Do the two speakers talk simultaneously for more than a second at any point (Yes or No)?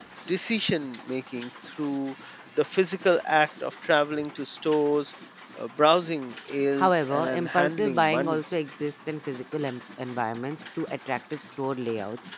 Yes